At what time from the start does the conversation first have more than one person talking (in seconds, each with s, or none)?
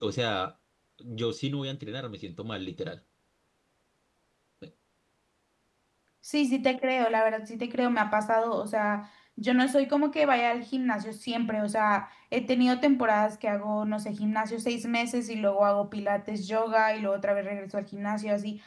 none